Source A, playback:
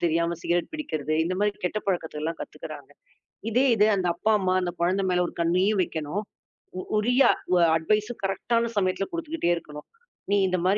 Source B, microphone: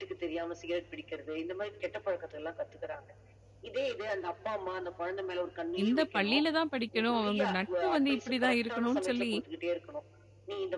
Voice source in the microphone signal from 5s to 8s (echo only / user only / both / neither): both